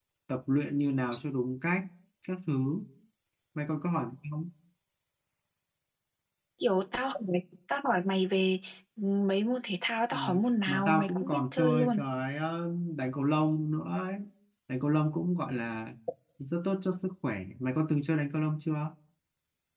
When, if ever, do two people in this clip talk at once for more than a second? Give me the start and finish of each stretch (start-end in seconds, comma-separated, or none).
10.7-12.0